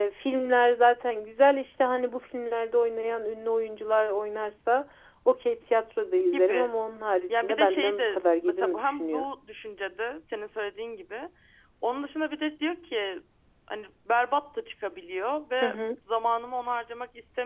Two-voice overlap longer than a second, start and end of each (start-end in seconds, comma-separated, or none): 7.3-9.3